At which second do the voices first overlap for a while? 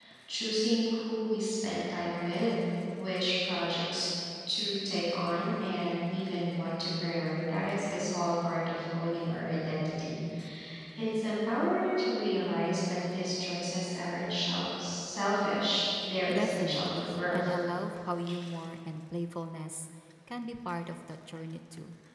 16.3 s

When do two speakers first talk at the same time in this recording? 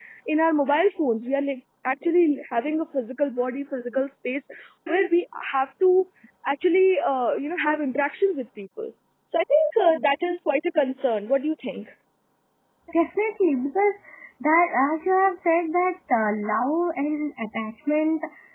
none

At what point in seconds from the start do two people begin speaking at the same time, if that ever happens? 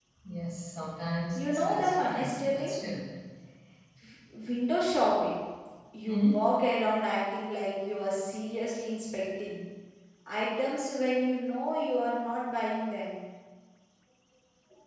1.4 s

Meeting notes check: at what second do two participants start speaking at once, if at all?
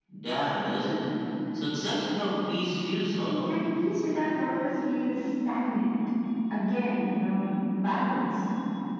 none

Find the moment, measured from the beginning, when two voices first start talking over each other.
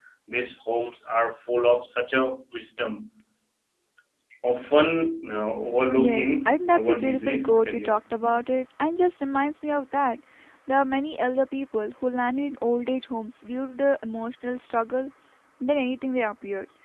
6.0 s

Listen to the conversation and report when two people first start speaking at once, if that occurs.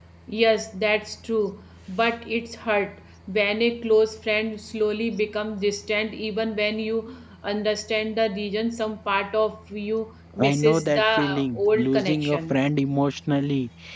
10.4 s

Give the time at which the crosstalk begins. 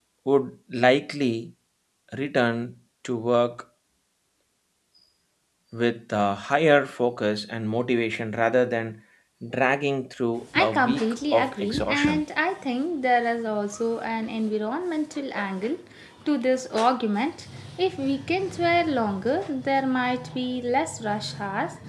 10.5 s

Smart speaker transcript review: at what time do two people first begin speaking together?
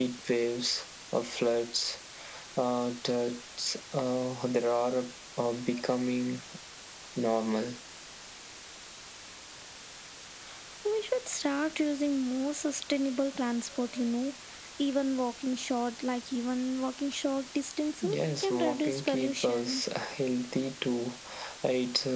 18.0 s

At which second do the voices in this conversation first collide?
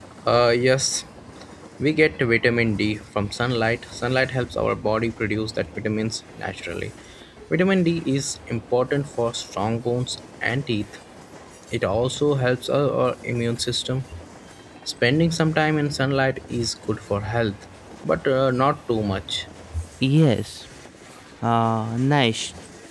none

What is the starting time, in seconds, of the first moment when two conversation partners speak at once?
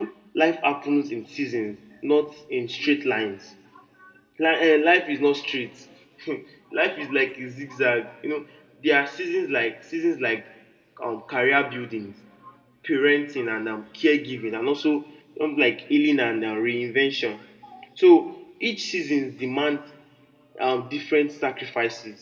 none

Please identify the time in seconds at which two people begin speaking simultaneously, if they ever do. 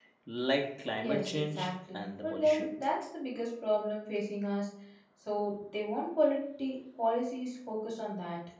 1.0 s

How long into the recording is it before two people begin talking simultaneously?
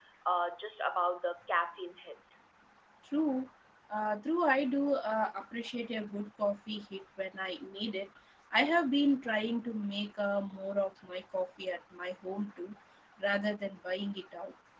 none

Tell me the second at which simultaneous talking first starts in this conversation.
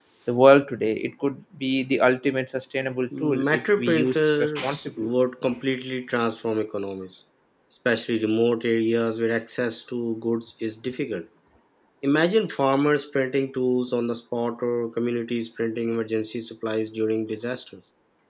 3.1 s

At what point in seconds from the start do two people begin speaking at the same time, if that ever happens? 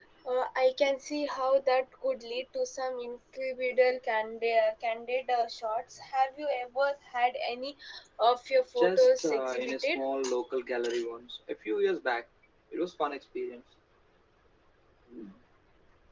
8.8 s

